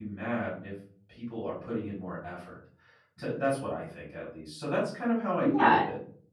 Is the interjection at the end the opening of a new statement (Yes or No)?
No